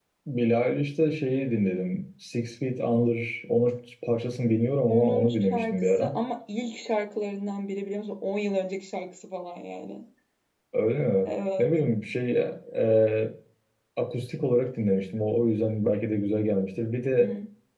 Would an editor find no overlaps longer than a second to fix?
No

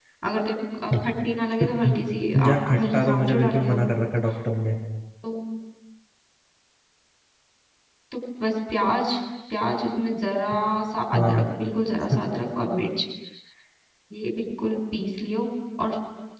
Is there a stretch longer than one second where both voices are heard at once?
Yes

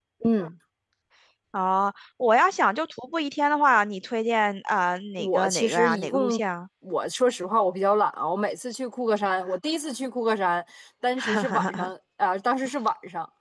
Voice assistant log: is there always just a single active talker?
No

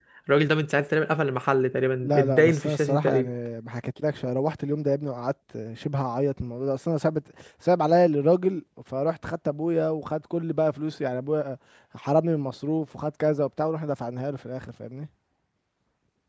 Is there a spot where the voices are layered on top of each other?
Yes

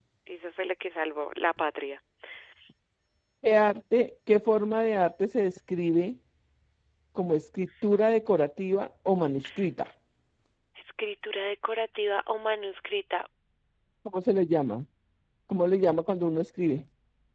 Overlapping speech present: No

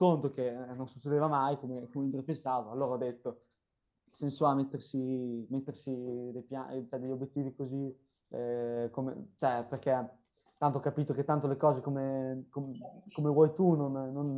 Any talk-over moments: No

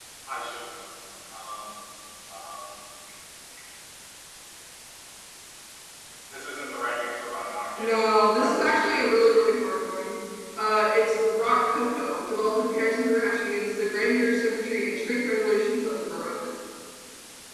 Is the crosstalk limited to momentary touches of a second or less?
No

